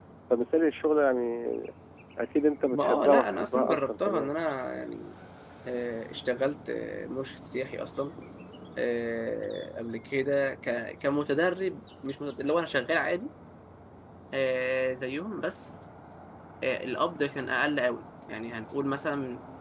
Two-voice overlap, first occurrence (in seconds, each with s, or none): 2.7 s